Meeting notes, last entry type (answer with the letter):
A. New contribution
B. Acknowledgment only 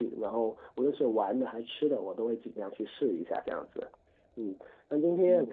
B